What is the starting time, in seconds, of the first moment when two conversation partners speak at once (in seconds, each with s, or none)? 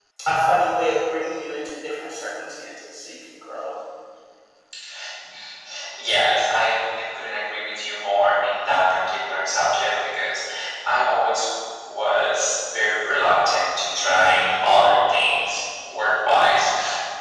none